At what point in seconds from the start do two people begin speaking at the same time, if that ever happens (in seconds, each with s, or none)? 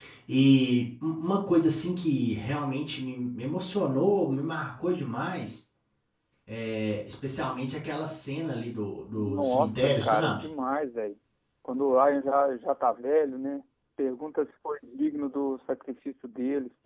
9.1 s